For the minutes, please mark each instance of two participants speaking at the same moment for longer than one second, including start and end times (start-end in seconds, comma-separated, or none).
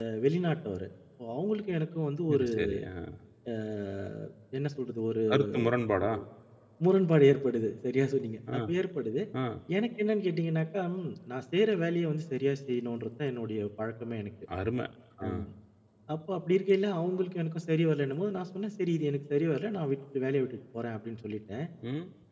none